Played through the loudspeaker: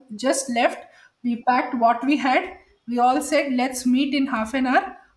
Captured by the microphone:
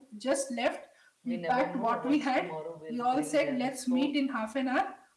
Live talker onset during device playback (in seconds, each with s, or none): 1.3 s